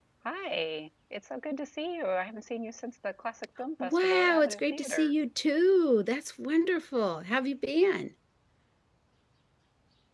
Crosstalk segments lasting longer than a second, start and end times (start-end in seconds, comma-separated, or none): 3.8-5.1